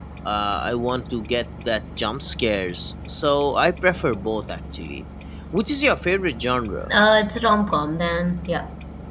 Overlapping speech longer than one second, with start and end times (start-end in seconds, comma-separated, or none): none